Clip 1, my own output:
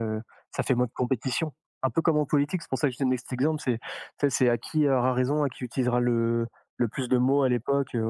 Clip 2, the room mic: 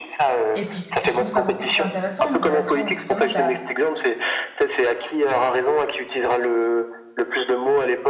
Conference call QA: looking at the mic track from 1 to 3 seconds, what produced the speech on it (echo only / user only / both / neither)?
both